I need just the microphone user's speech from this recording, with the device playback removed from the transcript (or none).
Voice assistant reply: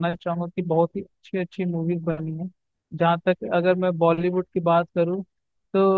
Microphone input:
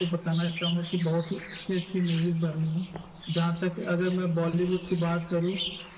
none